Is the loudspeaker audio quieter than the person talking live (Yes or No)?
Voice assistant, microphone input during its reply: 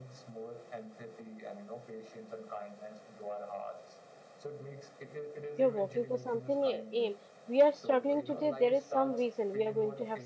Yes